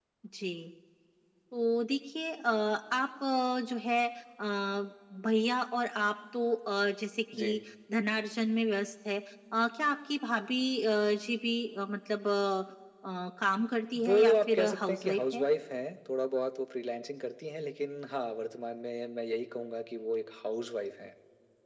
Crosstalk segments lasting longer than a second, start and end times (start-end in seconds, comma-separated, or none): 14.0-15.4